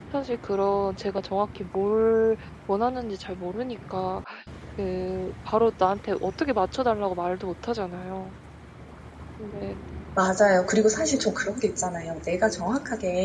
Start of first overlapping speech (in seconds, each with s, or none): none